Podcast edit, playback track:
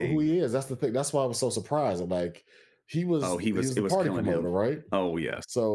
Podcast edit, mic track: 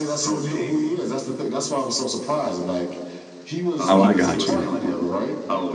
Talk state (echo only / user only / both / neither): both